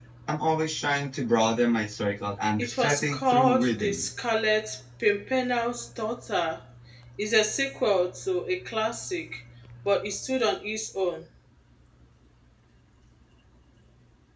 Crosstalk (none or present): present